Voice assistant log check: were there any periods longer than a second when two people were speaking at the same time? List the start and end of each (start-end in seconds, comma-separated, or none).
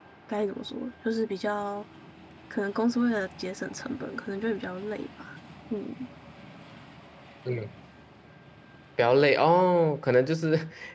none